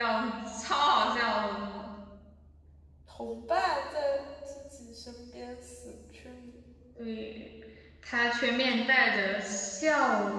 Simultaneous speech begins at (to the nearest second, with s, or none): none